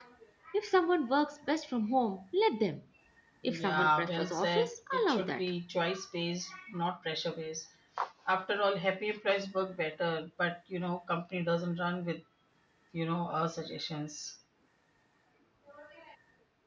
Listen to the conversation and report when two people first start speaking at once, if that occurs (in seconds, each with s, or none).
3.5 s